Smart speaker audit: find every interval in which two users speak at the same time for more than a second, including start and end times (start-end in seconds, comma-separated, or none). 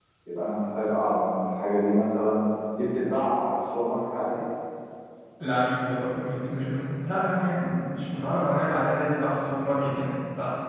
none